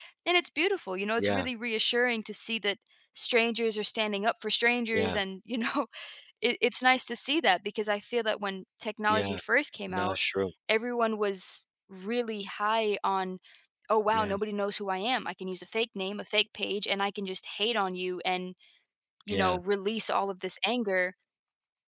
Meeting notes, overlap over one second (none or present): none